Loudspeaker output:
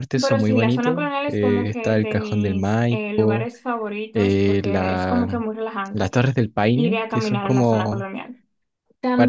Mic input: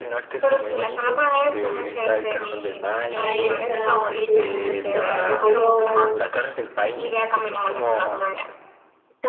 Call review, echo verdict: present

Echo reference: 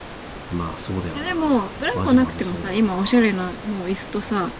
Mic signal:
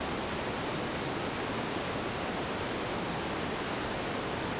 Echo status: none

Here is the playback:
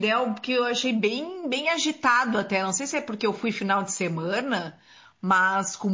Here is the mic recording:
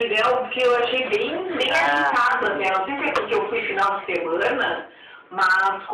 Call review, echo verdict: present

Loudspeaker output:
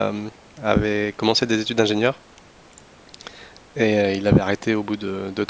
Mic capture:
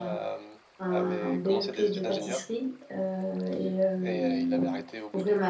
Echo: present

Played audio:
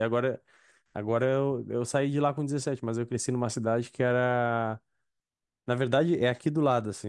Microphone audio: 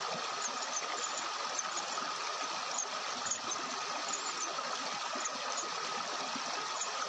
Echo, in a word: none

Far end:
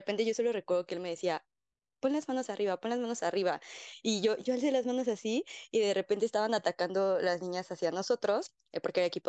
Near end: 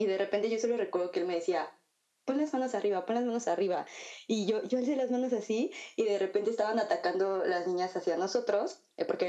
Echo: present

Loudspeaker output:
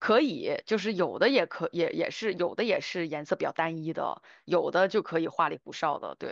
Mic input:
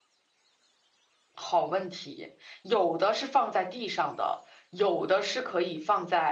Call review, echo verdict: none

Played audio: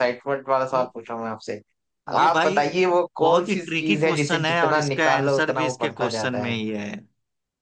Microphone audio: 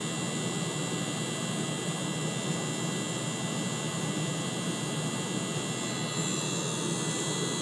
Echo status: none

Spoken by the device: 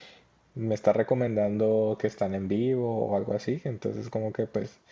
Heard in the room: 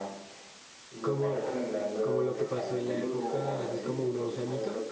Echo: present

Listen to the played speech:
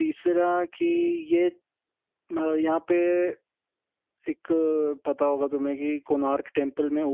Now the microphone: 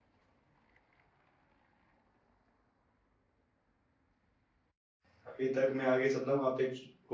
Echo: none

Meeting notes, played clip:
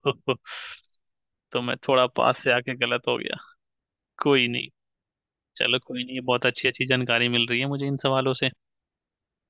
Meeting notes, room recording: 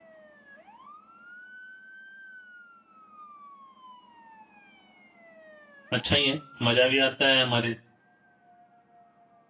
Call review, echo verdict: none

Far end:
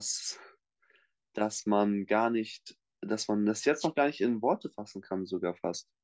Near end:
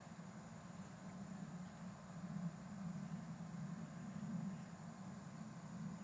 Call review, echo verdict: none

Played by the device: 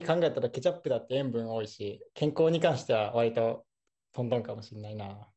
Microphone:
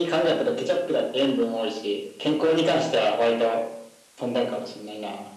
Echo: present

